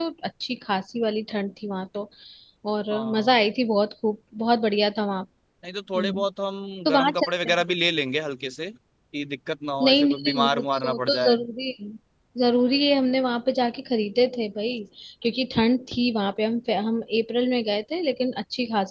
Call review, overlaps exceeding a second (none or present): present